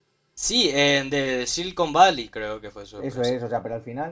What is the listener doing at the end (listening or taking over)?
taking over